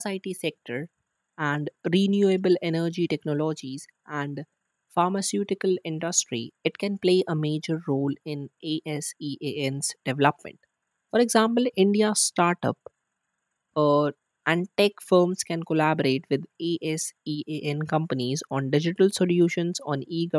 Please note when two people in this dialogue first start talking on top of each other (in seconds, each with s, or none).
none